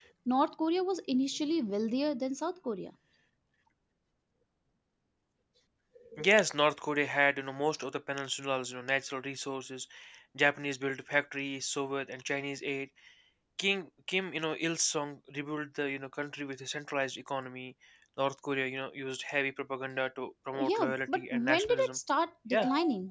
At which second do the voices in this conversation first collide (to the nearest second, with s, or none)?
21 s